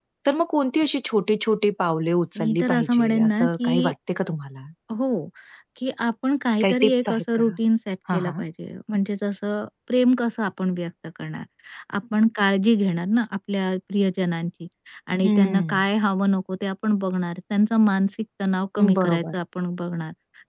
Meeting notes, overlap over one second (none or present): present